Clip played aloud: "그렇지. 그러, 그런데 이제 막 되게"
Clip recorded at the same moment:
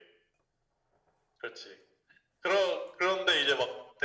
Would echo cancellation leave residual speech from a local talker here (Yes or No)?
No